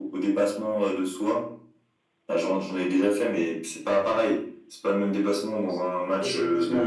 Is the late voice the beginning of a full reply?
Yes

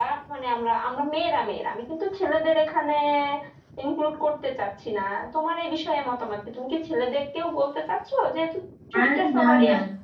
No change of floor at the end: No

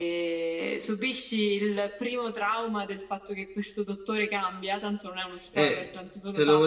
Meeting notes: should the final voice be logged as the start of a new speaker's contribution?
Yes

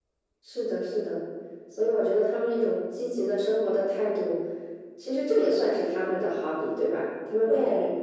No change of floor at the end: Yes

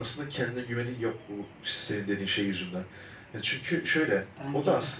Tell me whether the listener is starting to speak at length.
No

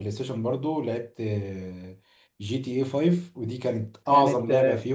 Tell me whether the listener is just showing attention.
Yes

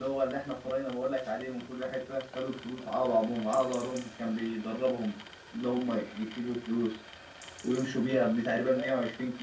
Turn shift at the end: No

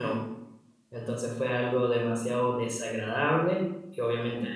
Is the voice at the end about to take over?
No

